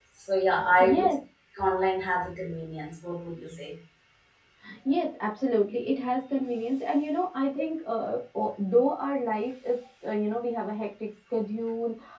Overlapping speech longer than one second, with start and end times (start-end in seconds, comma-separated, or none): none